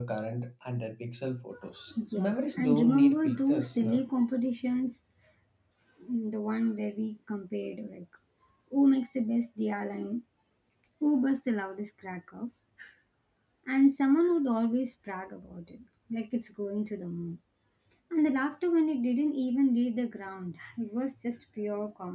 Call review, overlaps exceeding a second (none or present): present